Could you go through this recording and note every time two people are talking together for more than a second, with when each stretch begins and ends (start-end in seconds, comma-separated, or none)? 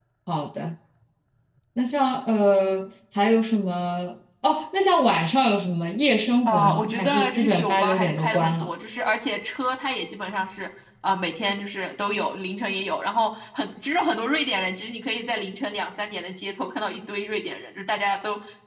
6.5-8.7